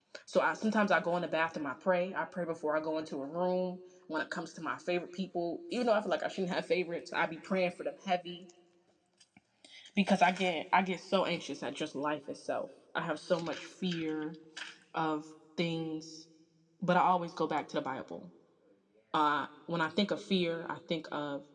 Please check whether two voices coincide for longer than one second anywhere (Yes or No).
No